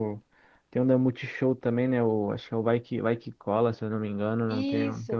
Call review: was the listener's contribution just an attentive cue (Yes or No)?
No